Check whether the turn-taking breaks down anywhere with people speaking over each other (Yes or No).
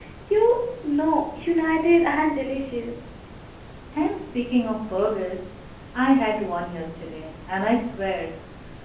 No